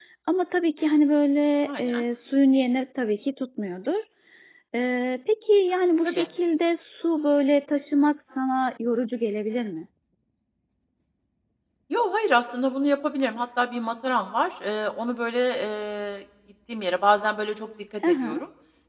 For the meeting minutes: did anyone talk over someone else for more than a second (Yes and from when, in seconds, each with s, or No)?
No